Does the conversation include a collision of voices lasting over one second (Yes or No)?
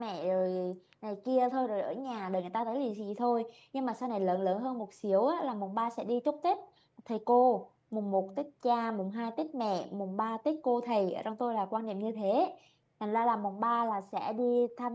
No